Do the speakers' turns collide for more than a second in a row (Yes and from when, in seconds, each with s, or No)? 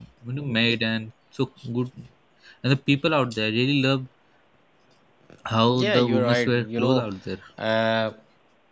Yes, from 5.7 s